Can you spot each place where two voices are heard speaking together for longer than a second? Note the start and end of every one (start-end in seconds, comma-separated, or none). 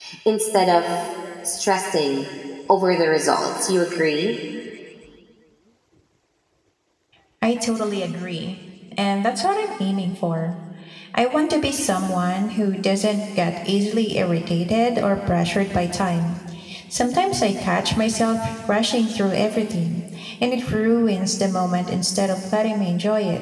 none